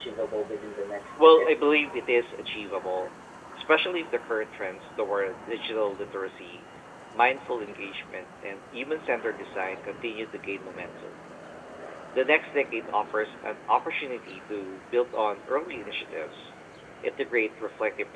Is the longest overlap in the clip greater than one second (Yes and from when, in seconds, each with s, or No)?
No